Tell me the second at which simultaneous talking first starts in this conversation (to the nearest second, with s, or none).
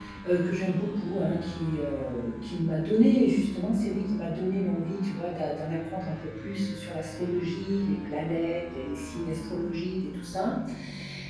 none